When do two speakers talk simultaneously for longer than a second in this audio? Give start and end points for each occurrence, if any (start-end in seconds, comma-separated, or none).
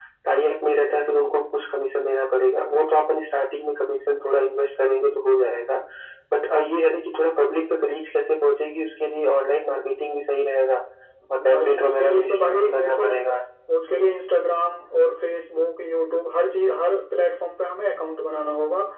11.5-13.0